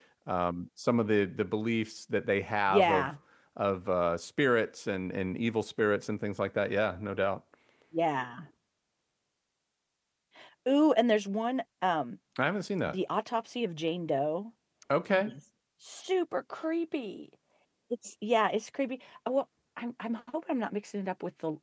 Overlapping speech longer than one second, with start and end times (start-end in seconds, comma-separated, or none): none